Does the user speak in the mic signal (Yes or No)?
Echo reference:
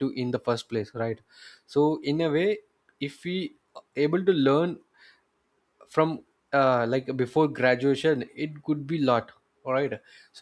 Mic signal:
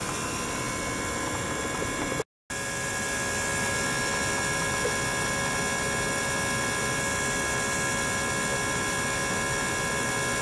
No